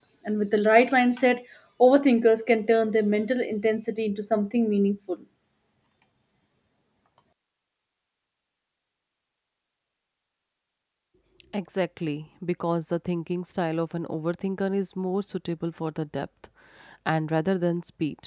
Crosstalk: none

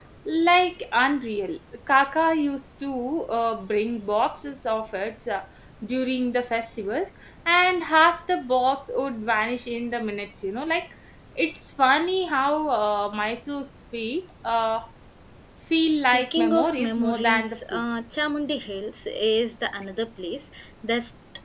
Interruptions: present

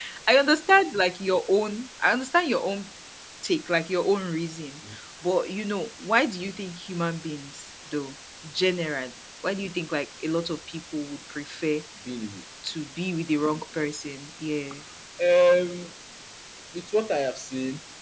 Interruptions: none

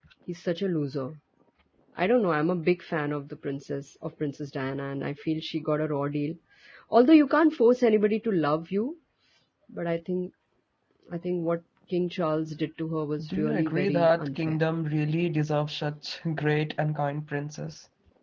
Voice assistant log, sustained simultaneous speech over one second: present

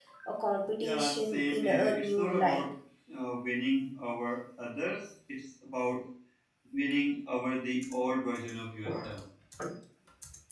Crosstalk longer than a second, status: present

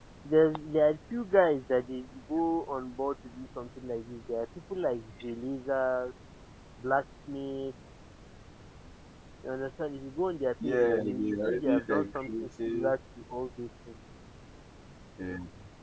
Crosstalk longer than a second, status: present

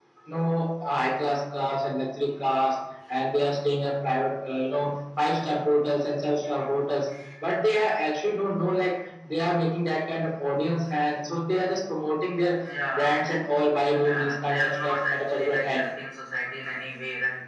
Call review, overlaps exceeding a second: present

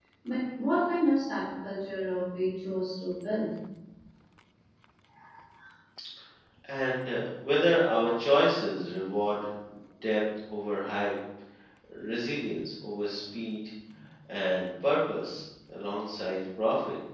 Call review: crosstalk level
none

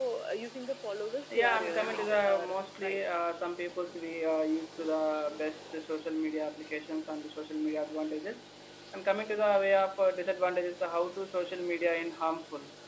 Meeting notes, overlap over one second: present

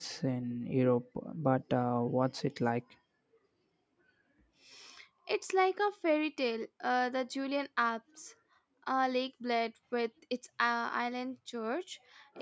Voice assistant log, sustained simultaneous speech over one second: none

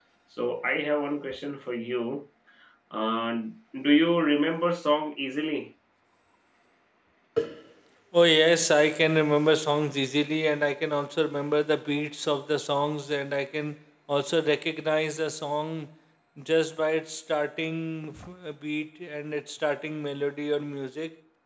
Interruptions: none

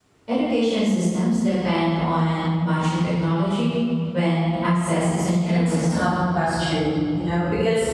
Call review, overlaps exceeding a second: none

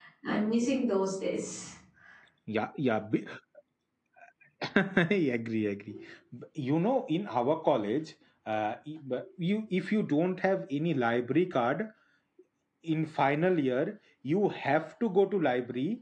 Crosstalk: none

